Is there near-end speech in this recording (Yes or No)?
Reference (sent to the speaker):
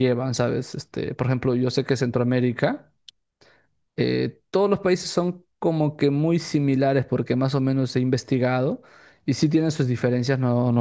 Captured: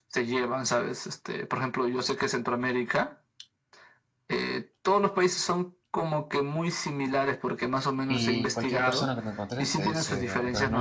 Yes